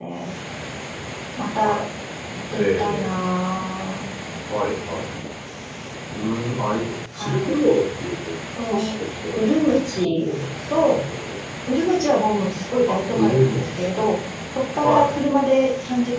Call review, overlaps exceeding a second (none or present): present